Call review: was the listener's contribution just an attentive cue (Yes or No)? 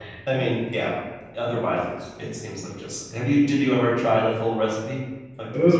No